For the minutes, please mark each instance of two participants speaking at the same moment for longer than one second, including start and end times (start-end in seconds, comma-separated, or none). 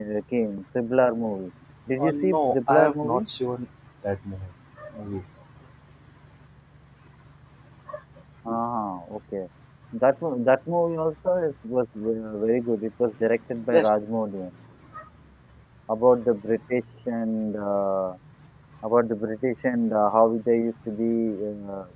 2.0-3.2